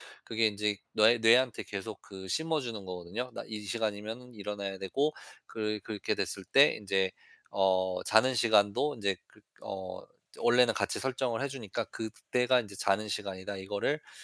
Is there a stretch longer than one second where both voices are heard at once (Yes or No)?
No